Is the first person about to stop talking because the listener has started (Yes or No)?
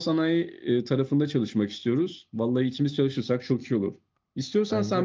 No